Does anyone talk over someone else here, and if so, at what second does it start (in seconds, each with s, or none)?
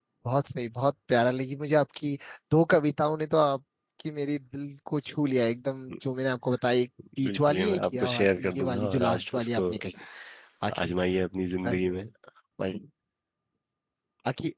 7.0 s